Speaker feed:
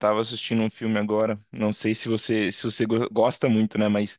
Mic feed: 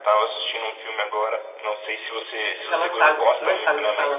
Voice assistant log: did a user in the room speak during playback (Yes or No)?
Yes